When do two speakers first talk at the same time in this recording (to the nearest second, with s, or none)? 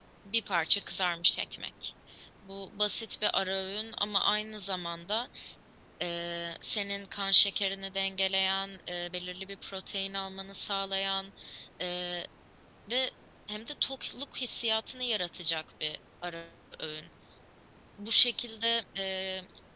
none